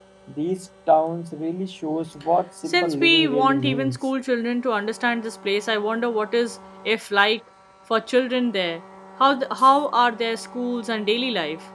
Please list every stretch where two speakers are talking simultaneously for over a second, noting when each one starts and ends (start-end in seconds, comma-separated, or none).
2.7-4.0